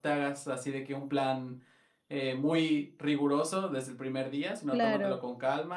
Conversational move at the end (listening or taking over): listening